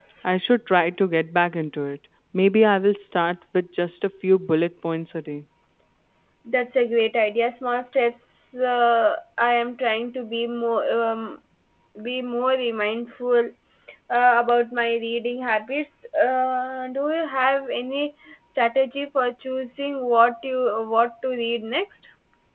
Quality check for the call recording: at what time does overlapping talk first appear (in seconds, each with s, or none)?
none